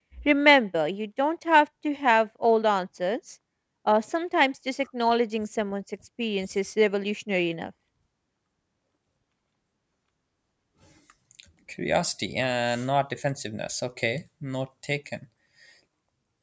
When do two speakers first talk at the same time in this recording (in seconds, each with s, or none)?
none